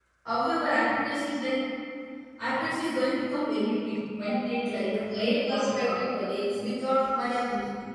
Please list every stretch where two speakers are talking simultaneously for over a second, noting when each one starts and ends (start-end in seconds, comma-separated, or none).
4.7-5.9